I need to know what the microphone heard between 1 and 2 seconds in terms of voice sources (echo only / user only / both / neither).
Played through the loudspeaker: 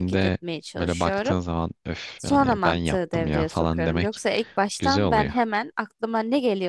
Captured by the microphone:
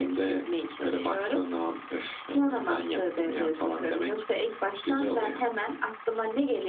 echo only